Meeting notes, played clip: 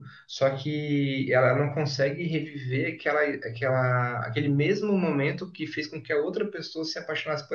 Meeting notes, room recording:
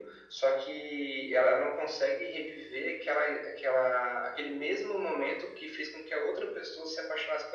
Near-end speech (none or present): none